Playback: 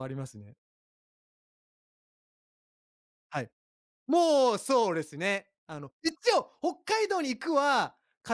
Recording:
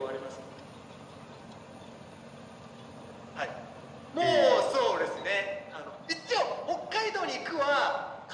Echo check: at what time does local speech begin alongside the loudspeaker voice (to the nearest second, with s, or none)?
4 s